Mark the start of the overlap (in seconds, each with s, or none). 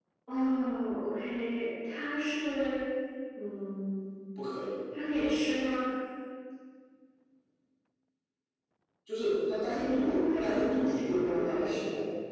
9.6 s